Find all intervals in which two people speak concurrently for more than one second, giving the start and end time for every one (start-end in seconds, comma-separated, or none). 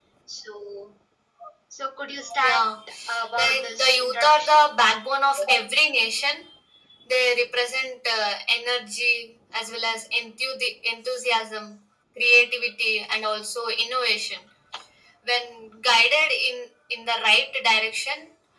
3.4-4.6